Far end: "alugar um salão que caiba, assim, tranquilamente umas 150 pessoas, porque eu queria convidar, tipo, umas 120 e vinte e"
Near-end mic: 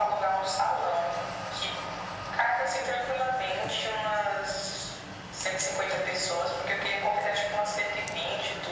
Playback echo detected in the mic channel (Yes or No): Yes